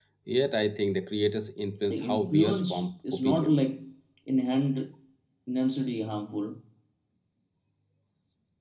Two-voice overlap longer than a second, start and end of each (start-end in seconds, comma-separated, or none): 1.9-3.6